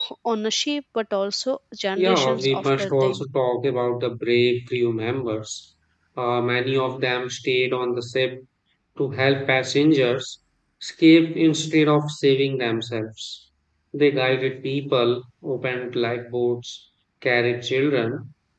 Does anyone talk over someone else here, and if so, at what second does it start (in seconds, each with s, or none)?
2.0 s